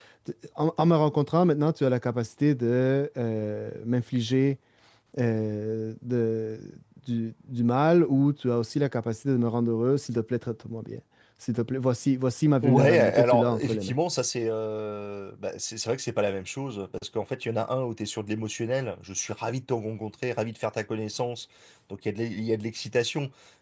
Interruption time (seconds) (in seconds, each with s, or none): 12.6 s